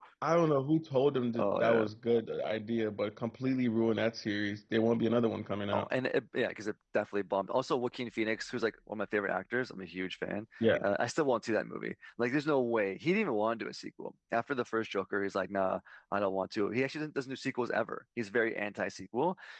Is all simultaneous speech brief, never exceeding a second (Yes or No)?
Yes